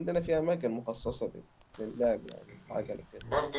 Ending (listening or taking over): taking over